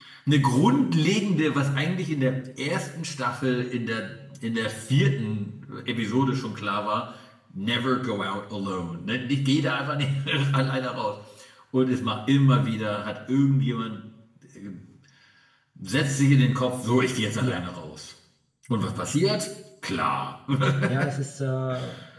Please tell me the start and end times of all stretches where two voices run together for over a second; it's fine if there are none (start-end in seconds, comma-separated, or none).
none